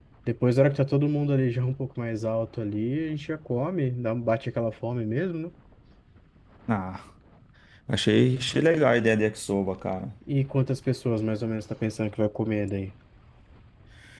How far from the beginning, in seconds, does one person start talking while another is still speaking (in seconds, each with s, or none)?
none